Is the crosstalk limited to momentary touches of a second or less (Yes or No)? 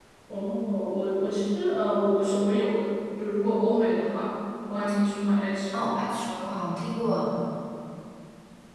Yes